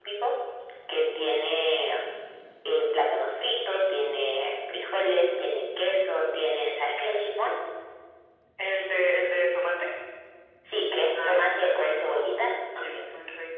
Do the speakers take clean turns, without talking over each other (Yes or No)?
No